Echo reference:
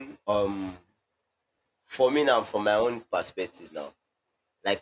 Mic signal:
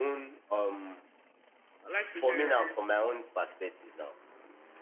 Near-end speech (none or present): present